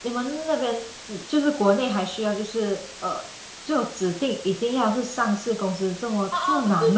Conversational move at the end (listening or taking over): taking over